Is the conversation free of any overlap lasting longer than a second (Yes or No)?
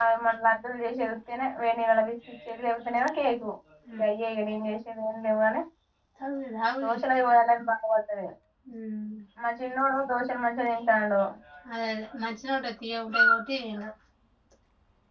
Yes